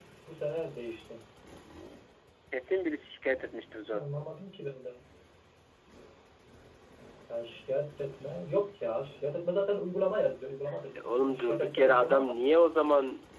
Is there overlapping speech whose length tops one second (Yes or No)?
Yes